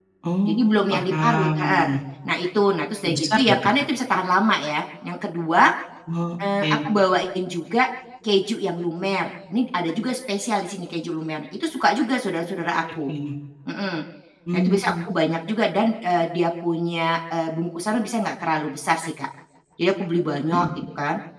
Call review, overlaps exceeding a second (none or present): present